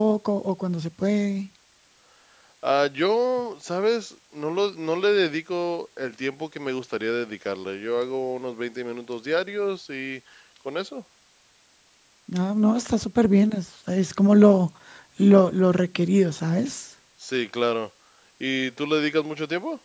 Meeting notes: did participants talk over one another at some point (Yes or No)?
No